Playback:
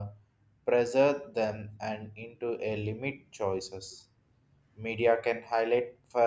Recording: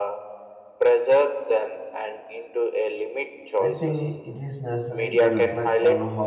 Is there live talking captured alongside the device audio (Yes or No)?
Yes